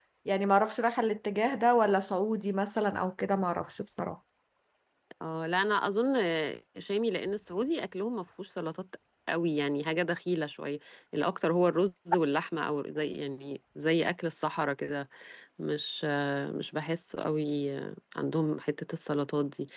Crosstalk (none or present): none